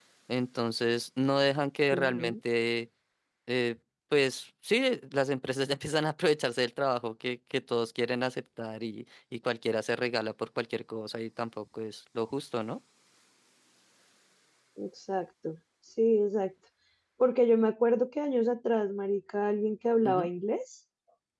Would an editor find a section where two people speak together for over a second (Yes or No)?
No